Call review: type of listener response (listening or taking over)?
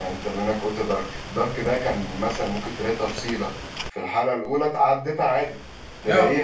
listening